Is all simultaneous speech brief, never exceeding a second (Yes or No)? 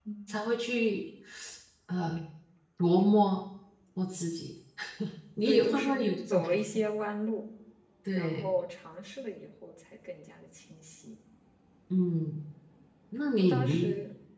No